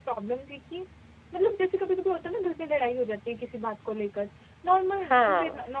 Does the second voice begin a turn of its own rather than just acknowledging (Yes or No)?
No